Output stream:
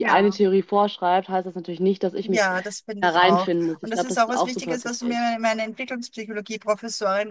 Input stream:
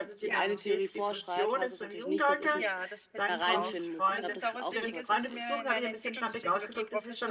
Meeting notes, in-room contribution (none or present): present